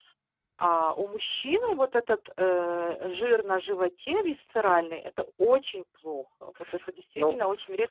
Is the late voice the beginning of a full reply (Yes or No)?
Yes